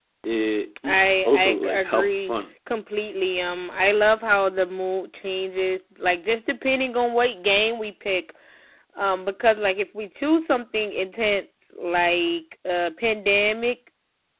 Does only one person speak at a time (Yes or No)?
No